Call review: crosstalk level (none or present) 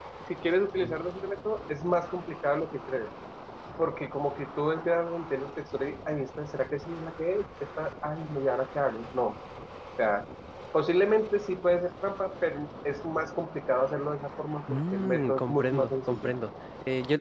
present